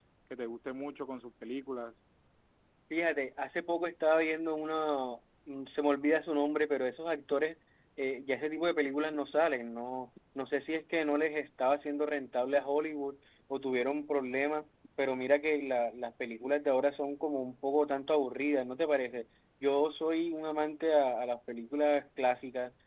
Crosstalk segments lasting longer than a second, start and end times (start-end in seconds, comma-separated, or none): none